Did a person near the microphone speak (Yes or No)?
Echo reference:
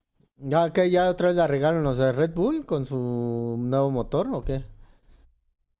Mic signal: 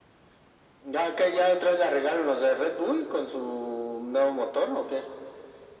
No